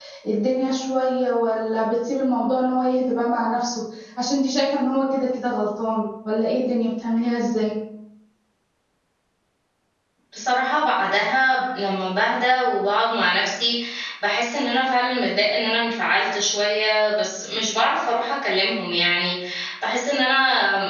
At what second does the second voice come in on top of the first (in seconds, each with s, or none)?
none